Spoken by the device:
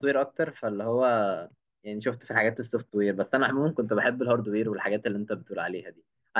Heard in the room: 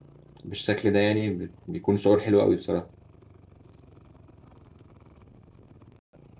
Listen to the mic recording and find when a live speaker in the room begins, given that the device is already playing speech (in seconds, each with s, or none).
0.4 s